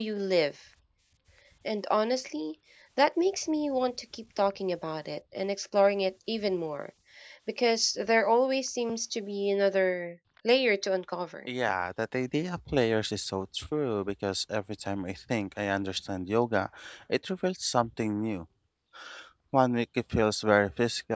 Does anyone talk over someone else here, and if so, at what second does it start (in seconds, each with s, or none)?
none